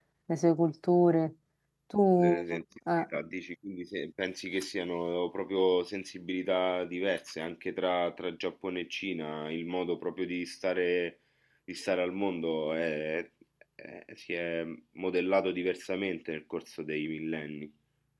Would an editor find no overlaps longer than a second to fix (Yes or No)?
Yes